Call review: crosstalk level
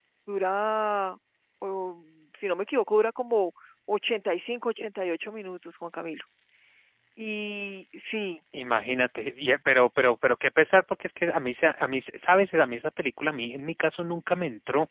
none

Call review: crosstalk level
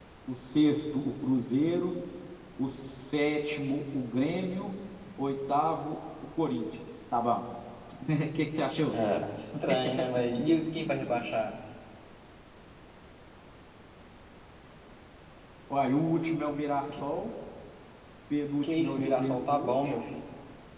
present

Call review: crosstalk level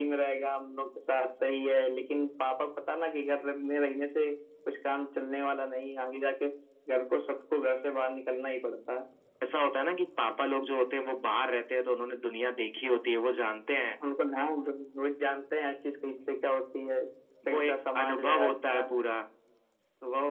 present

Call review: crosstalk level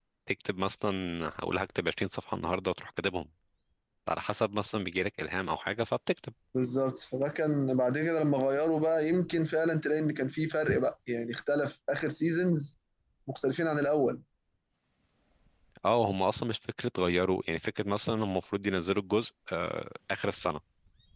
none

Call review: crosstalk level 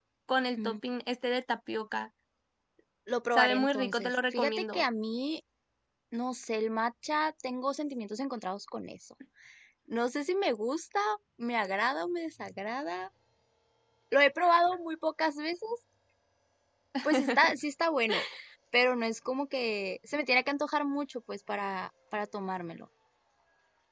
present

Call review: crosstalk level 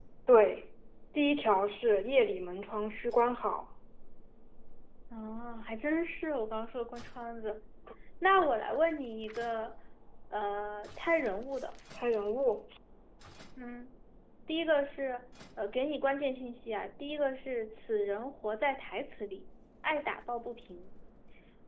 none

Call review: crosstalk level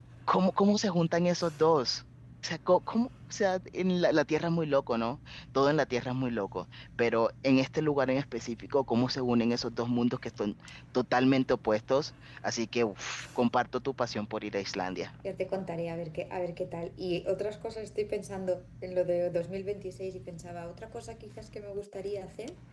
none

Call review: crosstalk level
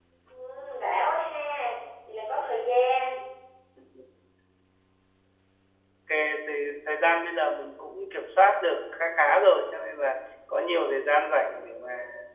none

